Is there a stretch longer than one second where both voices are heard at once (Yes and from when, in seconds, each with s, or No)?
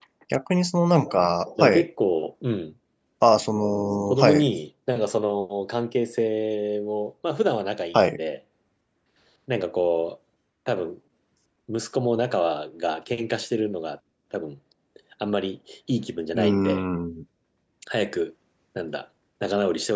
No